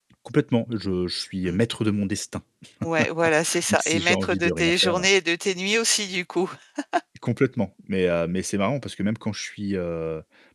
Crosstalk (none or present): present